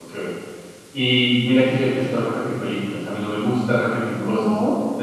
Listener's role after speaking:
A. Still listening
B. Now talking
A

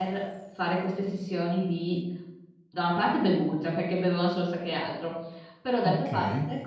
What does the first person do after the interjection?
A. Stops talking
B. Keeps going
B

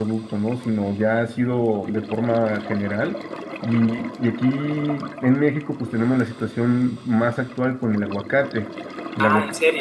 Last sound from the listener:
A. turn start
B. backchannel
A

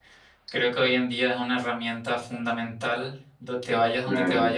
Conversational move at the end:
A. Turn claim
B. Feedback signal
A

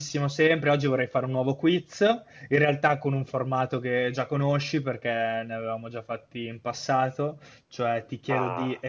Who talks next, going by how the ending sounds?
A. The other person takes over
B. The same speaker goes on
B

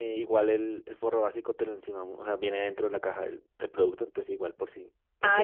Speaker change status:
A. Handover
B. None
A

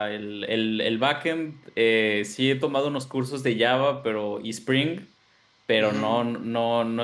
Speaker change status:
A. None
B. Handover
A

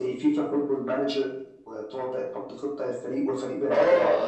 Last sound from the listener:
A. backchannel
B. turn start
B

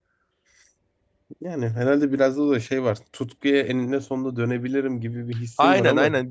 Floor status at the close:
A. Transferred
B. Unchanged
A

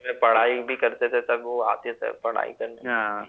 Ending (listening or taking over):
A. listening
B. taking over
B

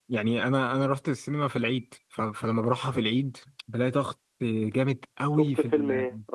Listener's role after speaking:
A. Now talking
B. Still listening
A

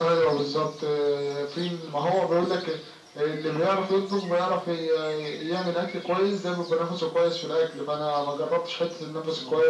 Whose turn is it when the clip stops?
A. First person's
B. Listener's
A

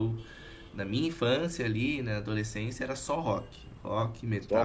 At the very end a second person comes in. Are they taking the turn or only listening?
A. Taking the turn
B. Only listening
B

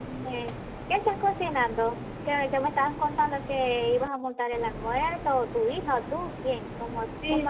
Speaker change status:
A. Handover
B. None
A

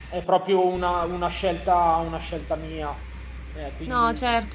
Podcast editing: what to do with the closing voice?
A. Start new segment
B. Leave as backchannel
A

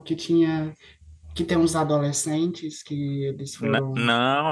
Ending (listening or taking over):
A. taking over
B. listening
A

